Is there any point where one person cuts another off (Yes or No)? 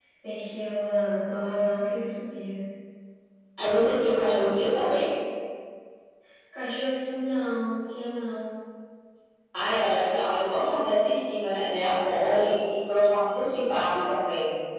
No